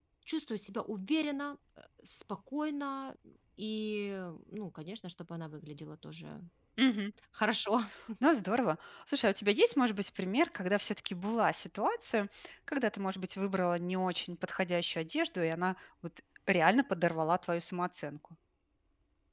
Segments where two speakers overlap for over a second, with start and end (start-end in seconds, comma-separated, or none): none